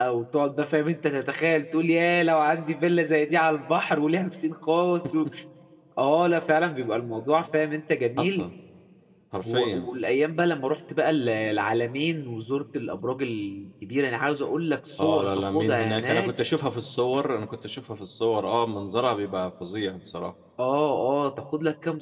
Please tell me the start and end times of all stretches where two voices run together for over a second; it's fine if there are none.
15.0-16.3

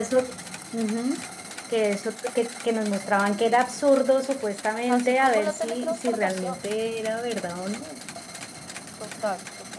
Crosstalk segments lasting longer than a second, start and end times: 4.9-6.6

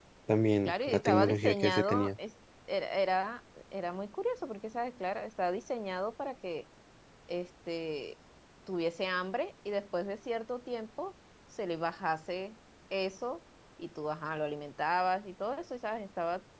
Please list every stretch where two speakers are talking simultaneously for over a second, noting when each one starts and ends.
0.7-2.1

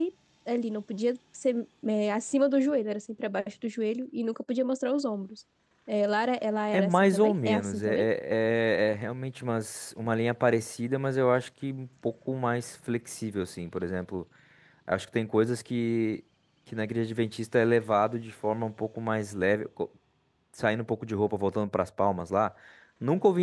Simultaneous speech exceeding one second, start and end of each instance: 6.7-8.1

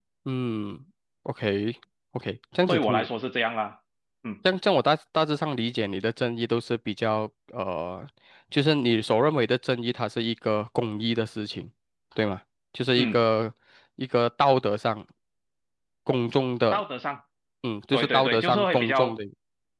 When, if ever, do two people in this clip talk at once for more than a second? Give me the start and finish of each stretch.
17.9-19.1

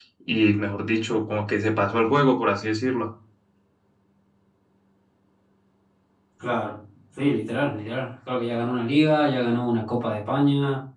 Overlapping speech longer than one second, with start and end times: none

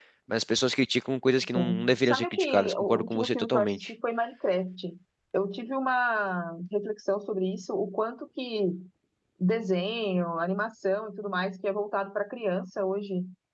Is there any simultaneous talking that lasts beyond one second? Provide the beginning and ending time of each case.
1.6-3.9

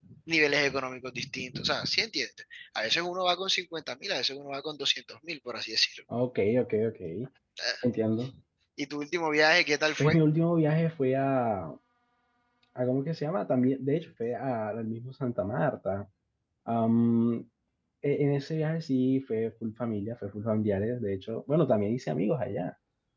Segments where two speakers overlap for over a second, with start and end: none

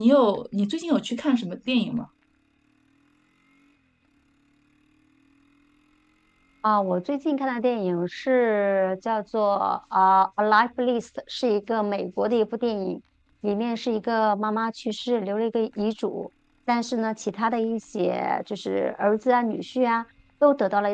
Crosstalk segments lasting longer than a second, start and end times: none

